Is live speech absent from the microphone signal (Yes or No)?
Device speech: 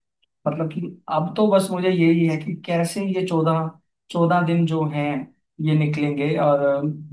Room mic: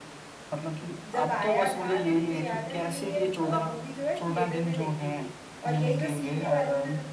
No